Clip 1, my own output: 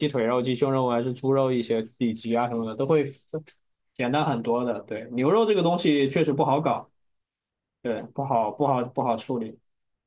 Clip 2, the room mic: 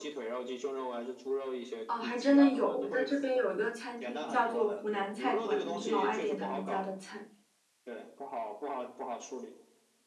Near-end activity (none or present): present